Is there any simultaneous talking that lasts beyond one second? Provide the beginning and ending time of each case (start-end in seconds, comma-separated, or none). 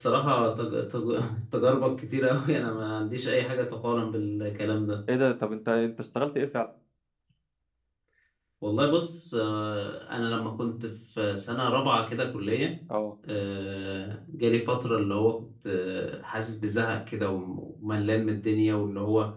none